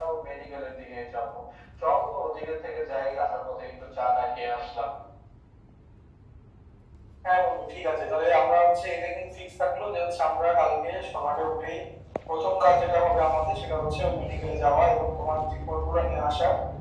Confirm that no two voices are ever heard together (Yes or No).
Yes